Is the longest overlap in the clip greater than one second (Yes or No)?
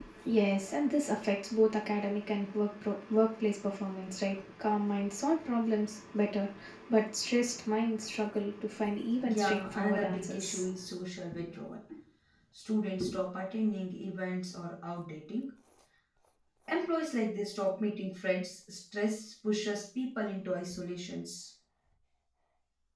Yes